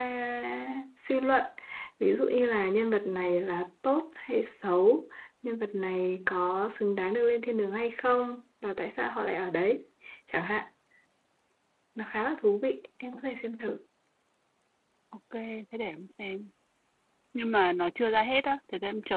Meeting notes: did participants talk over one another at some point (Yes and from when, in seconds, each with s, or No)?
No